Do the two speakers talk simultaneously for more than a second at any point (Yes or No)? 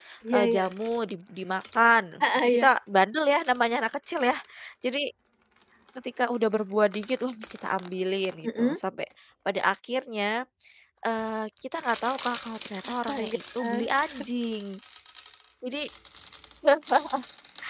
No